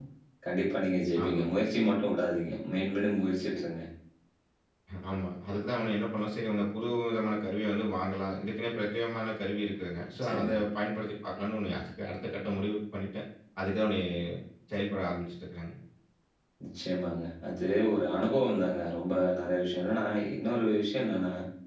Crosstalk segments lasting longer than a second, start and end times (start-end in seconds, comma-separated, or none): none